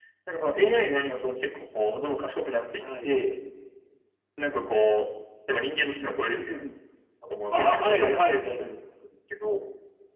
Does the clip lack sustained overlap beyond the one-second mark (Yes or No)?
No